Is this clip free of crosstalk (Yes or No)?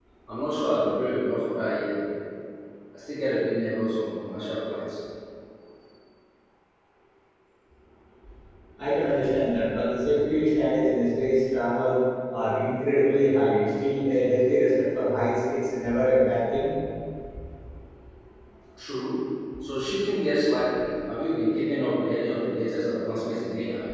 Yes